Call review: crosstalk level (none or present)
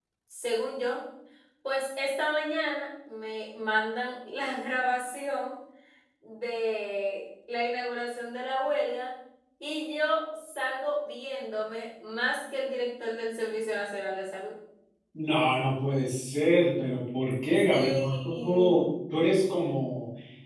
present